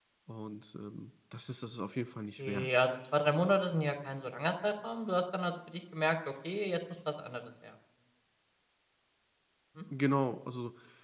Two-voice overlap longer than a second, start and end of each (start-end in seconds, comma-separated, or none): none